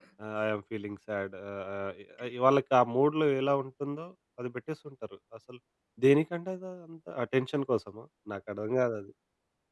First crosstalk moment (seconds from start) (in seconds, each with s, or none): none